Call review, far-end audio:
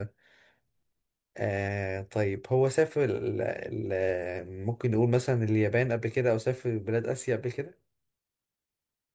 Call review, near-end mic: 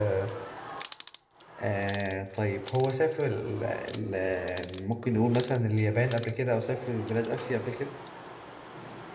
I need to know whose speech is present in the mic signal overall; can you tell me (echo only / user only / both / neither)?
echo only